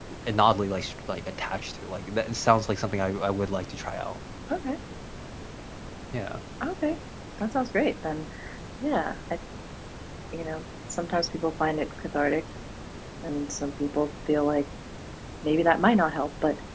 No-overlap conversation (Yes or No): Yes